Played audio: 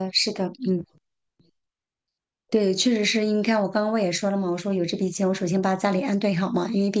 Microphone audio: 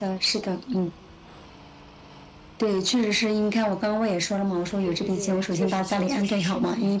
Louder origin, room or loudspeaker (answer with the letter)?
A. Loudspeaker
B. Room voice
A